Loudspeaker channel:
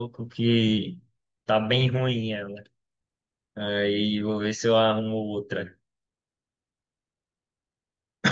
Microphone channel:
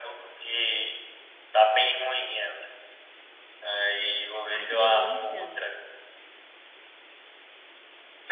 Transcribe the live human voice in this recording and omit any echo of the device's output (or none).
Ai, que delícia!